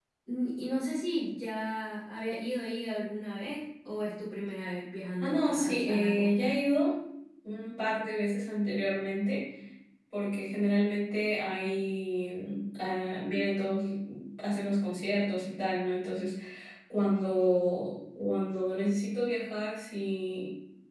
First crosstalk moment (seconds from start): 5.2 s

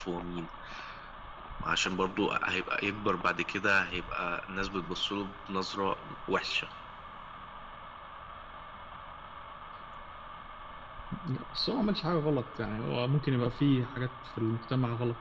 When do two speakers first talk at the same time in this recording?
none

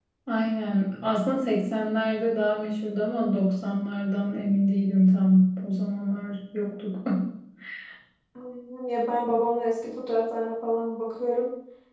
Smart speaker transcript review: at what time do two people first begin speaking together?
none

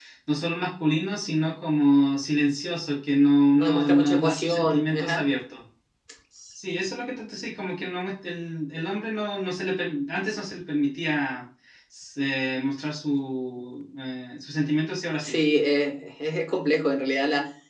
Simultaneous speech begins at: 3.6 s

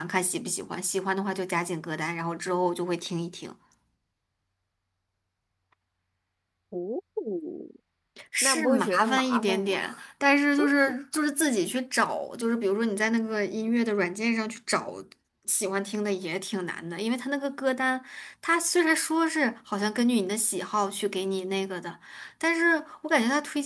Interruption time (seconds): 8.4 s

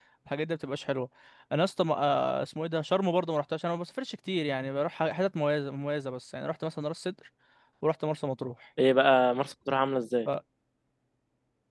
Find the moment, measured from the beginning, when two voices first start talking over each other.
none

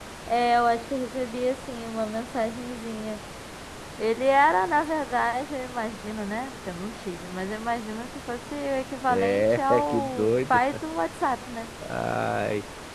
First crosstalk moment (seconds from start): 9.1 s

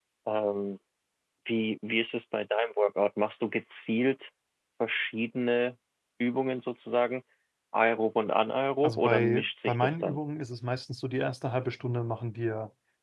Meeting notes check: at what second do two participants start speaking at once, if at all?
8.8 s

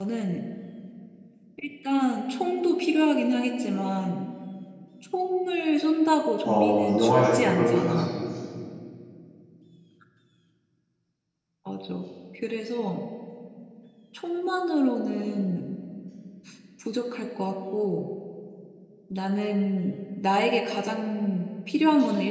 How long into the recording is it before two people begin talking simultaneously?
6.4 s

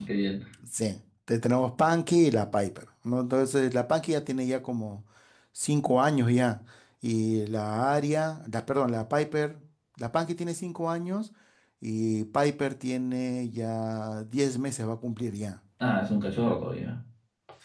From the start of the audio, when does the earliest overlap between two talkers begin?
none

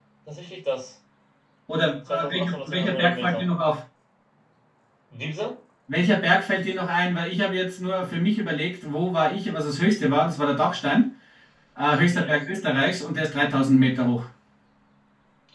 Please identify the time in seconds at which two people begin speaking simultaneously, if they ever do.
2.1 s

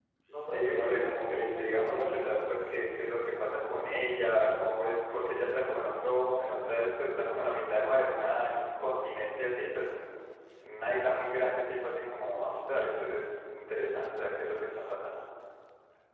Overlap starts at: 0.5 s

